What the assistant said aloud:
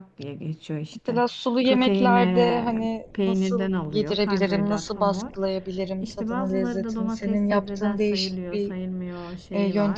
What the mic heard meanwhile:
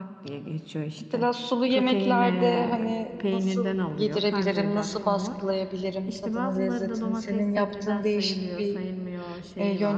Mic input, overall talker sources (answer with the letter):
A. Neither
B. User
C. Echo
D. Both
C